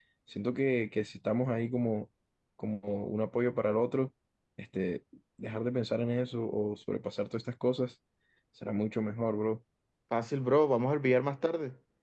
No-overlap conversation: Yes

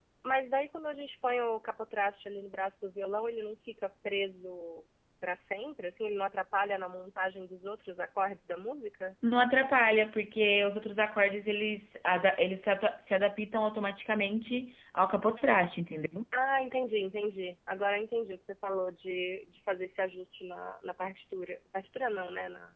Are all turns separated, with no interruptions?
Yes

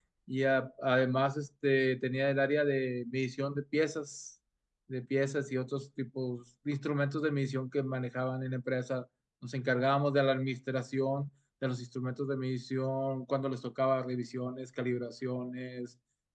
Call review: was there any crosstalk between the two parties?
No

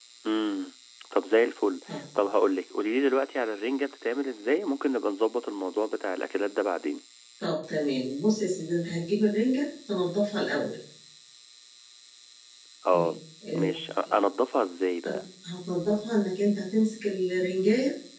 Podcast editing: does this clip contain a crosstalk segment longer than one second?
No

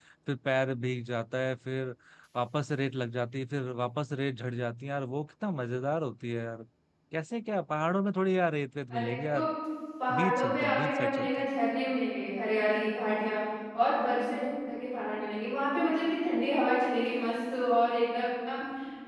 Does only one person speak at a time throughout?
No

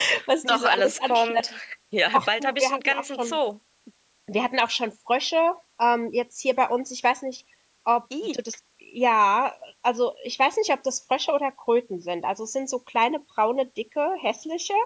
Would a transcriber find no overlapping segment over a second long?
No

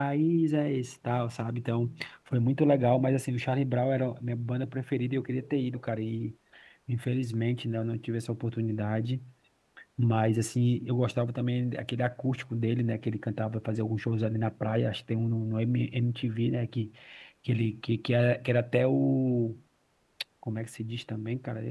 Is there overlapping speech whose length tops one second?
No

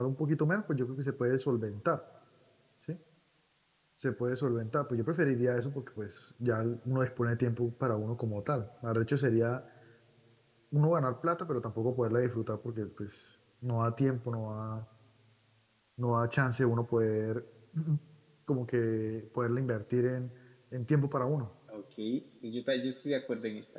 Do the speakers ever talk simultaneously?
No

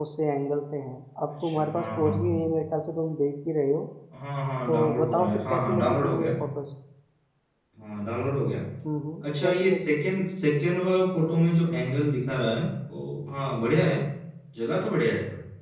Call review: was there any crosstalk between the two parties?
Yes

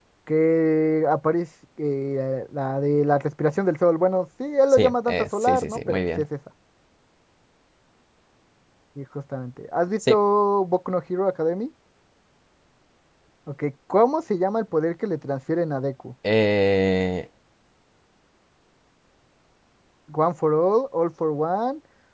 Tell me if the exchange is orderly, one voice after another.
No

